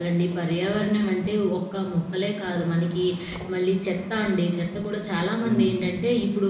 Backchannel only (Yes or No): Yes